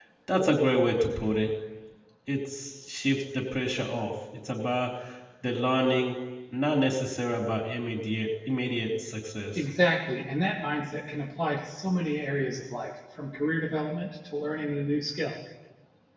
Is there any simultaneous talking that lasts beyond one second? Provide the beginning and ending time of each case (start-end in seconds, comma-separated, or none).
none